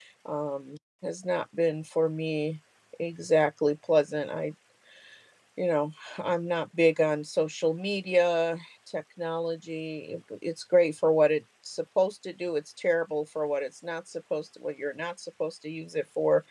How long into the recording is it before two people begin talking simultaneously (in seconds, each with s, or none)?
none